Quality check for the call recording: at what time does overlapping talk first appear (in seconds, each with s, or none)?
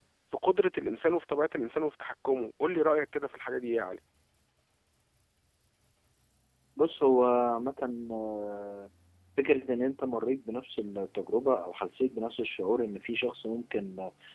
none